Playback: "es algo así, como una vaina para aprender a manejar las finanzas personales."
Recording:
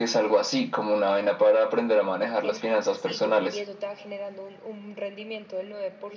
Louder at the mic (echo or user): echo